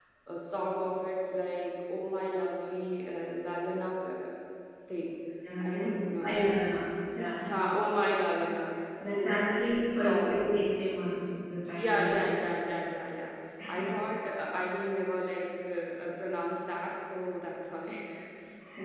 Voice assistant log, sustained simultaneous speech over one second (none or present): present